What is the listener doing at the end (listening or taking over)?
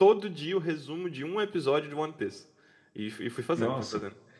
listening